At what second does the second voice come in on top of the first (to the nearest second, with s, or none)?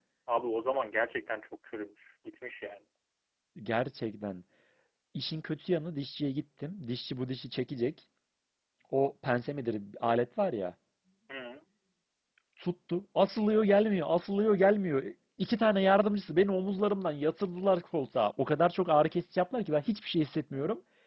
none